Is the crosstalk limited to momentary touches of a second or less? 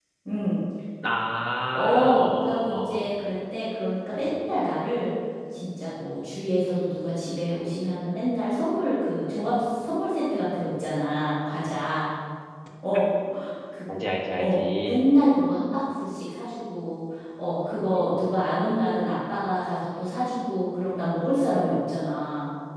No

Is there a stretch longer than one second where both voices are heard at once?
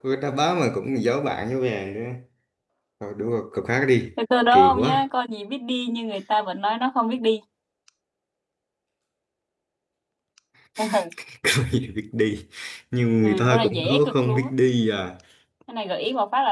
Yes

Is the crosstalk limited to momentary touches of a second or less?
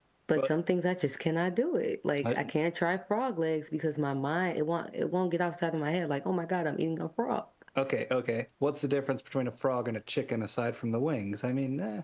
Yes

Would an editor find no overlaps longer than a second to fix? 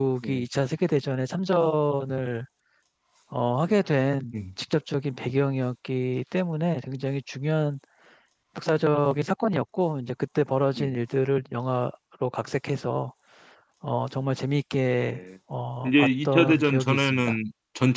No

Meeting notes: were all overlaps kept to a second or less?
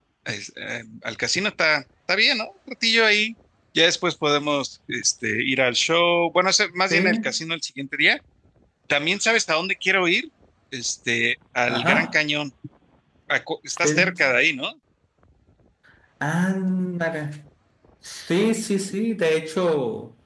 Yes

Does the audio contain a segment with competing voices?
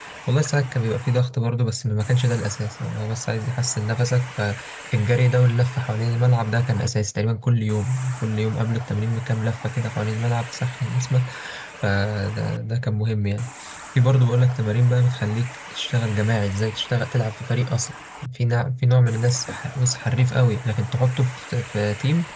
No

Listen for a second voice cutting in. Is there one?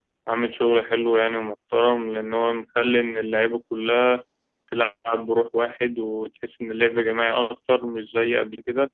No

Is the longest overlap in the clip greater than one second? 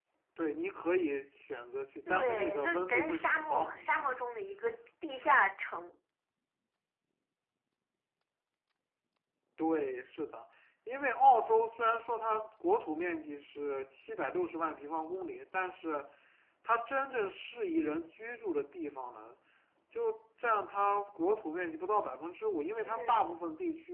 Yes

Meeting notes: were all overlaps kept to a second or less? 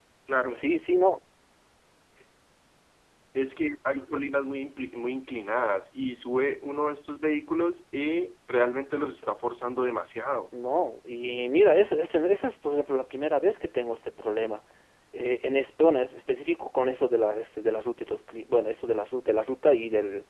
Yes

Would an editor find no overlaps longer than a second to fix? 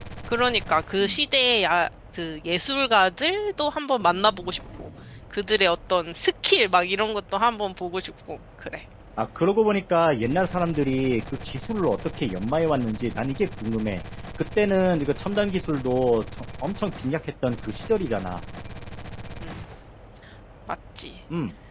Yes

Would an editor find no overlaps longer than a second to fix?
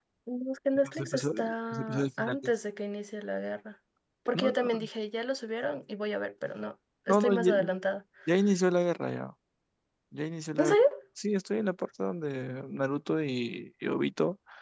No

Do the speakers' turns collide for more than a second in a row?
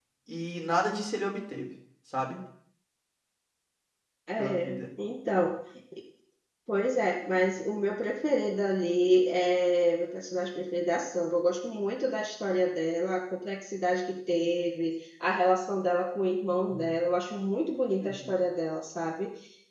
No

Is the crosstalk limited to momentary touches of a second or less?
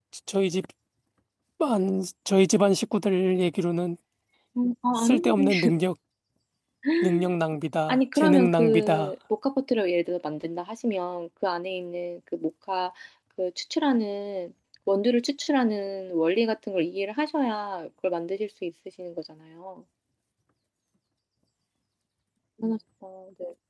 No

